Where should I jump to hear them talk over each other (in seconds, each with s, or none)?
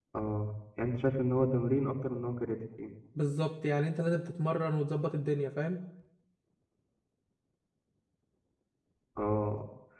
none